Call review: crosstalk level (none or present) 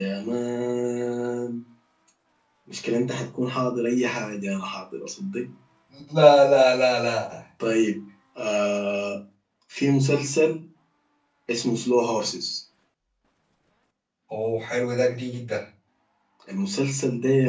none